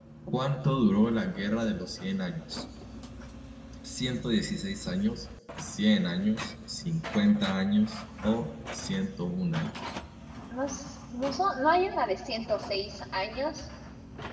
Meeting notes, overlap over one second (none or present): none